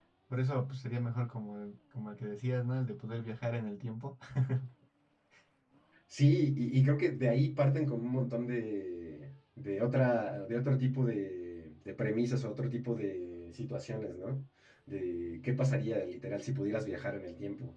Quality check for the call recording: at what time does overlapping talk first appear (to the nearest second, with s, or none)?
none